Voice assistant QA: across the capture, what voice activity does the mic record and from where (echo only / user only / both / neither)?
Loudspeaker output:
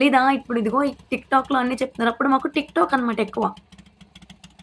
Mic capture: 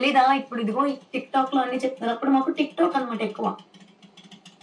echo only